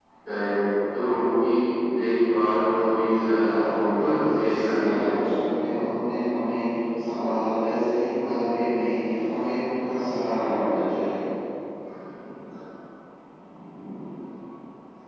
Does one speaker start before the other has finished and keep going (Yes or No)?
Yes